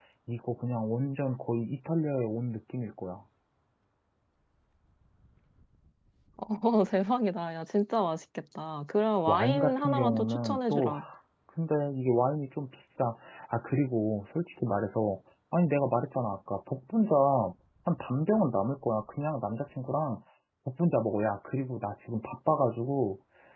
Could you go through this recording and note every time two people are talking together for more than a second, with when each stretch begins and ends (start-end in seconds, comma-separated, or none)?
9.3-11.0